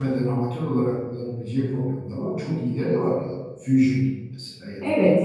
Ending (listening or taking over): taking over